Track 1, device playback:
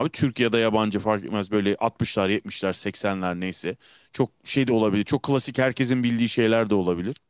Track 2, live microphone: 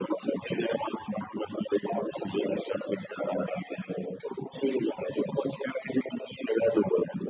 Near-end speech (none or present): none